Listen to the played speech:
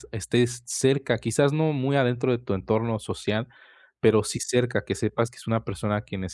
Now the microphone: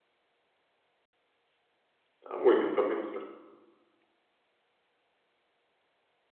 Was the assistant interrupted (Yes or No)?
Yes